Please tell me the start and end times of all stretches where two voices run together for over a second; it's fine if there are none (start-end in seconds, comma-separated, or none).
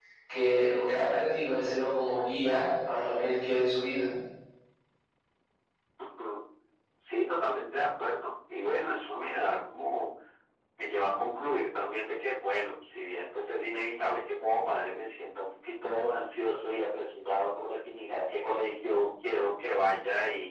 none